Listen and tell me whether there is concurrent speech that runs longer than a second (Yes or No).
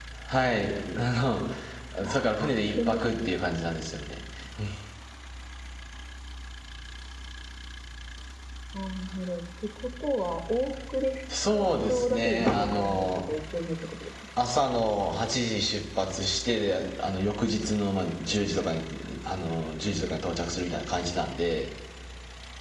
Yes